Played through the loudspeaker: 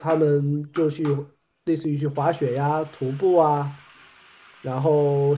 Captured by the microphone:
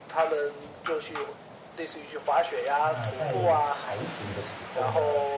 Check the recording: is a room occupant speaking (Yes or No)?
Yes